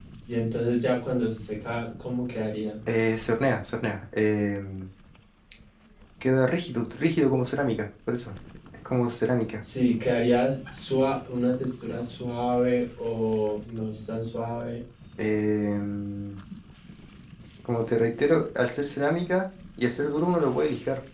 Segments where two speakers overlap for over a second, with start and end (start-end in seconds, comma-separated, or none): none